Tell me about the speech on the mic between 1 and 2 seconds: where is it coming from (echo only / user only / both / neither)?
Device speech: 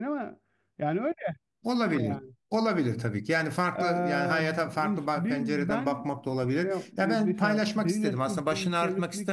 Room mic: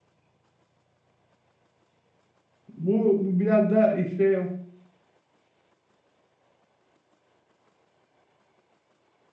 neither